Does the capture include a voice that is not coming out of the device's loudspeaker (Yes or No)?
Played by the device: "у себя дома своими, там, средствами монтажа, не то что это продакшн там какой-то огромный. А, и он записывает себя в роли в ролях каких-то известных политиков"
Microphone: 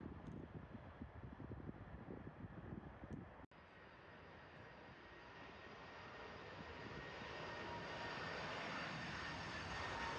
No